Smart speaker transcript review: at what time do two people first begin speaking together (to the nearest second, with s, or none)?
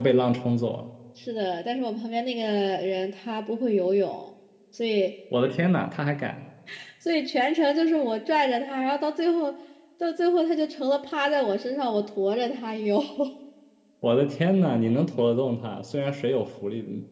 none